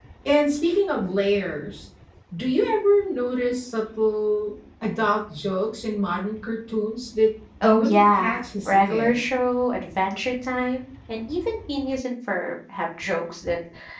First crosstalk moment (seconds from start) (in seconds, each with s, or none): 7.6 s